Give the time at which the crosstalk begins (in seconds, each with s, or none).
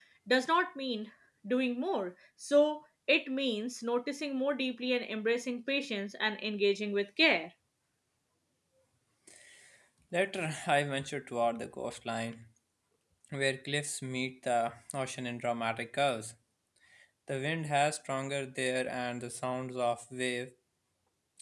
none